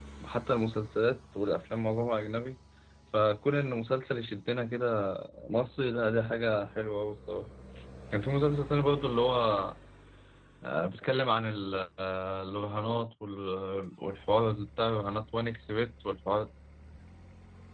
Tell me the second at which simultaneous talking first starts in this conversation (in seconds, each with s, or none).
none